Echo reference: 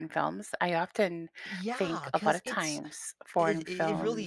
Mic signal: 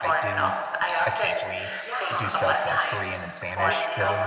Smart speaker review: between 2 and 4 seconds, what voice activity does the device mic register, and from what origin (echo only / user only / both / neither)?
both